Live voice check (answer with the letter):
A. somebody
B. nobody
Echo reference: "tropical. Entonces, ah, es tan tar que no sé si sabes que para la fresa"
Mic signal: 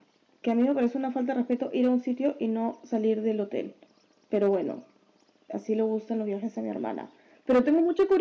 A